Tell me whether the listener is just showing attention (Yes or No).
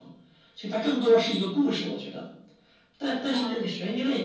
Yes